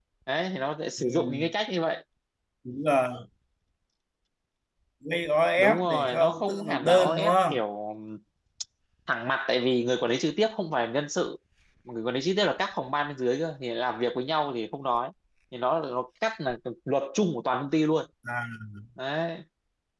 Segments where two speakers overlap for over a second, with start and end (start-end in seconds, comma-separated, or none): 5.6-7.6